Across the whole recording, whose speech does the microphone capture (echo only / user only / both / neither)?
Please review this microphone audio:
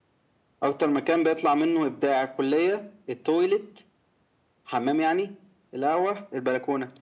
echo only